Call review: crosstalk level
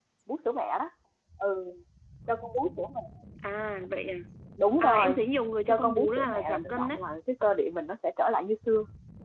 present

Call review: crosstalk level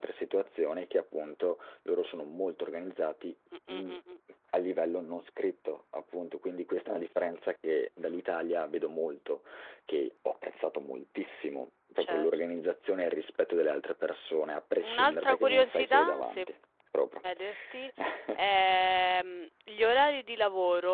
present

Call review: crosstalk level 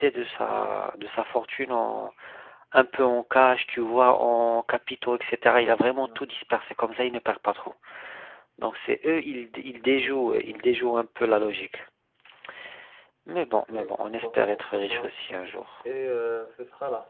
present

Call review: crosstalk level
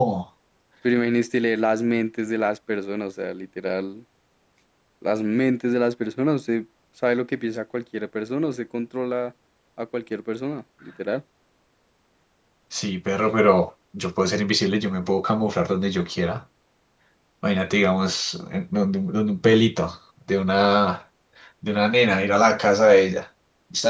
none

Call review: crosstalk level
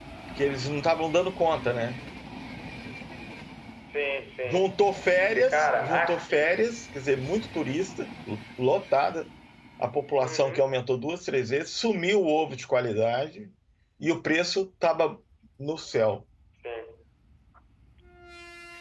present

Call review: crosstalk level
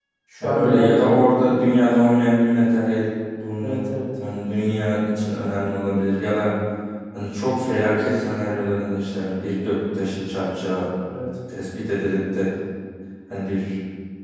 present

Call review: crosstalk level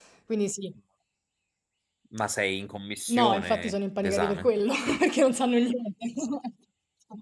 present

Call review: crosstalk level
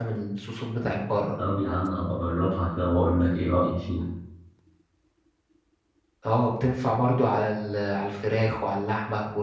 none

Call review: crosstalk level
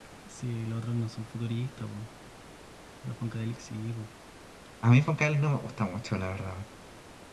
none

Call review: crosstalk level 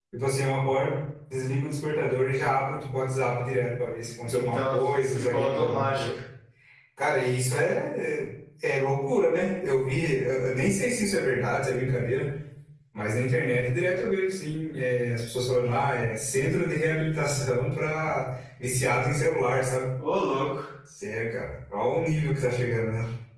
present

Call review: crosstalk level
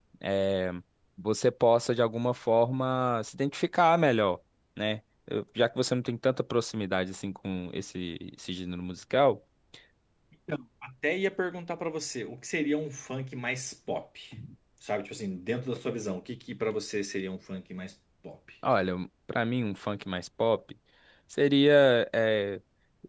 none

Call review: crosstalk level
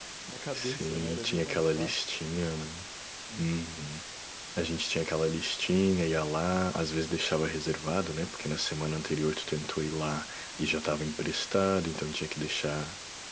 present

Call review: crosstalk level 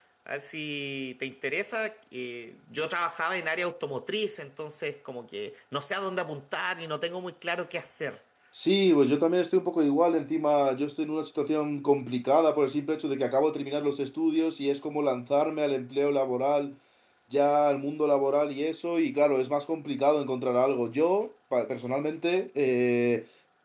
none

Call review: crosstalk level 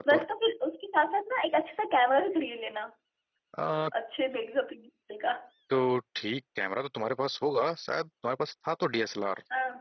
none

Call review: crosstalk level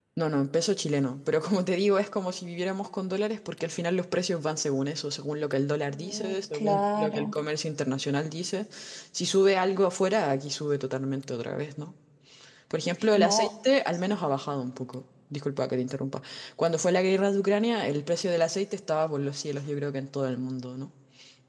present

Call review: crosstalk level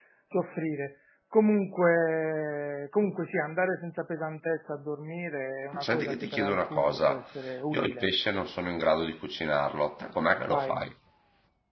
present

